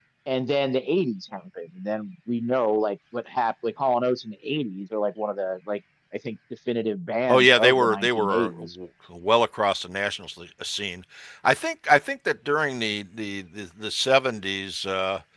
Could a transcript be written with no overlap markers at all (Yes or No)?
No